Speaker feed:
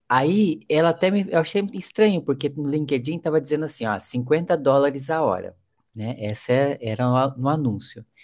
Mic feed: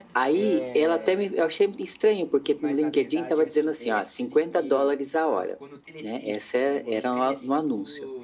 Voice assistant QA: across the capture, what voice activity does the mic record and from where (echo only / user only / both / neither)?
both